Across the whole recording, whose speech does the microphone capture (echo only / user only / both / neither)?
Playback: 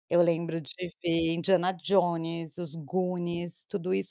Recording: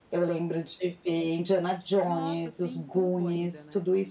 both